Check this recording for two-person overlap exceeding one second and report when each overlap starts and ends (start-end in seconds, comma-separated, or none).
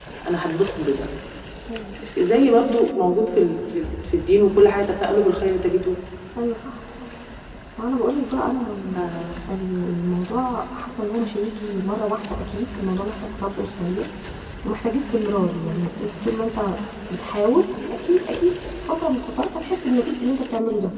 none